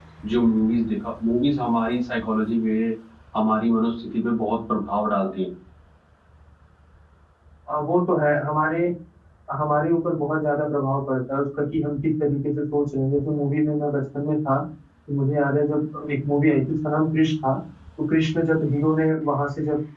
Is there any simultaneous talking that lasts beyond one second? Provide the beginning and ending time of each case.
none

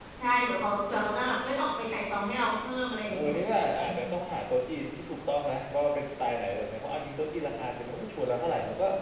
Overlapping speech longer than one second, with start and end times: none

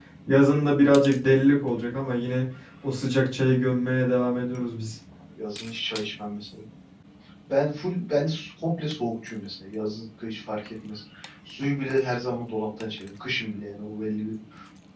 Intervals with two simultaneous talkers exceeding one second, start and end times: none

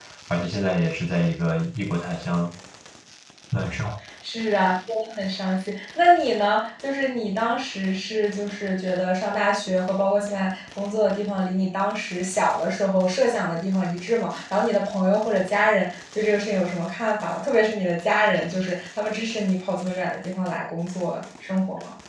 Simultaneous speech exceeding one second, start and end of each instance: none

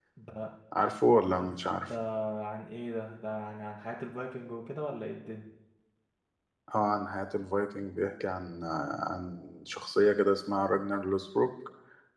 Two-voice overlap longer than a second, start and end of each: none

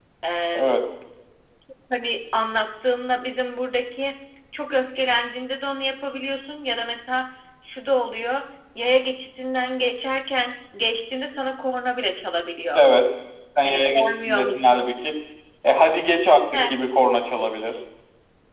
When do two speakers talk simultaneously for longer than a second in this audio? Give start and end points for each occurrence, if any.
13.6-14.9

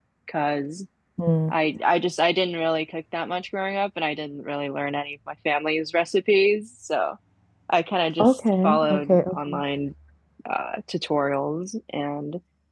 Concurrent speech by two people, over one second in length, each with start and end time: 8.2-9.5

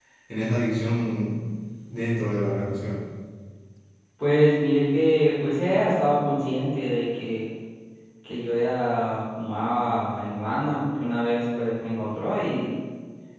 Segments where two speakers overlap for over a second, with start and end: none

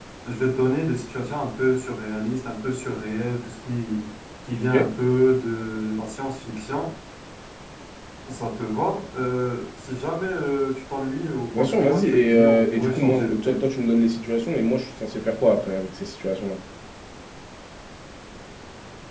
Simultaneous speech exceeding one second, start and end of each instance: 11.5-13.7

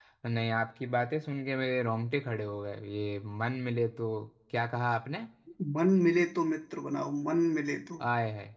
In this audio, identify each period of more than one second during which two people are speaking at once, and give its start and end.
none

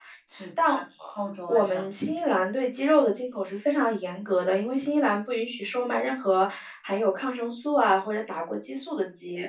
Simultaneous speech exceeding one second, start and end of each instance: none

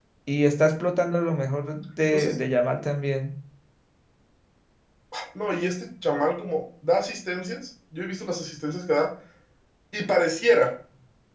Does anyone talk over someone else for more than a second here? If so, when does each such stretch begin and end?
none

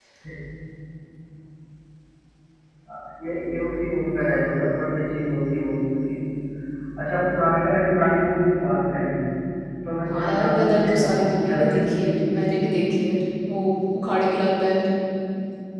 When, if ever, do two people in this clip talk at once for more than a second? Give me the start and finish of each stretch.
10.1-12.4

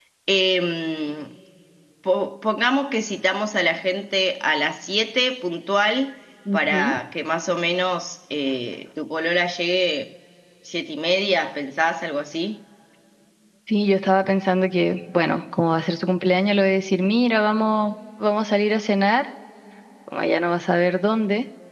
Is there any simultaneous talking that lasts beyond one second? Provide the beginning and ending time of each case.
none

